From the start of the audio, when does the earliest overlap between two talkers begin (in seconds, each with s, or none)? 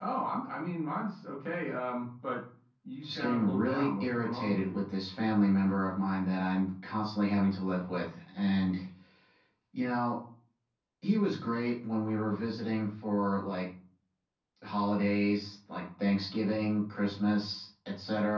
3.0 s